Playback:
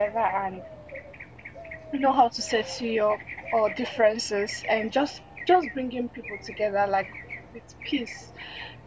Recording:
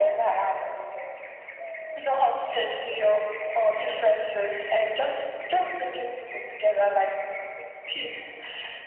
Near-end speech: none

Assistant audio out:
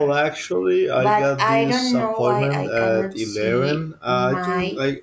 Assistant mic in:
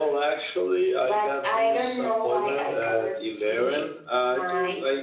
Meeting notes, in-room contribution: none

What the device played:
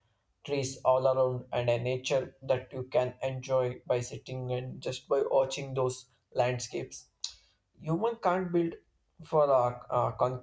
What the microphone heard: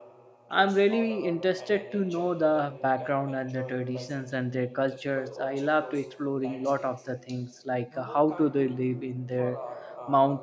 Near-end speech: present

